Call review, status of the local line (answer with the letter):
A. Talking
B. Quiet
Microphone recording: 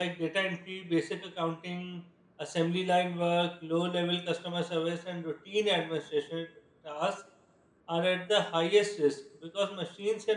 A